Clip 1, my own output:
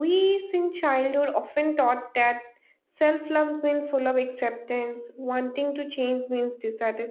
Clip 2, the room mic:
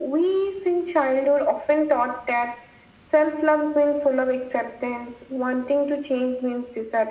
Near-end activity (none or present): none